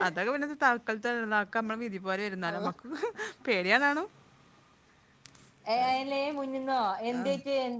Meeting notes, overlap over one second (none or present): none